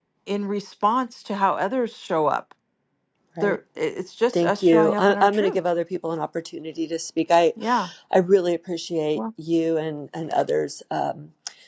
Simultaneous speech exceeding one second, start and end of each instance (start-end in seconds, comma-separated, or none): 4.3-5.6